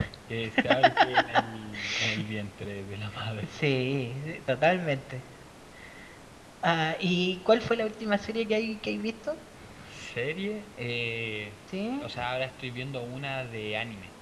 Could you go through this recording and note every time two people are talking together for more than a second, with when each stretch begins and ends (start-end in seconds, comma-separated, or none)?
none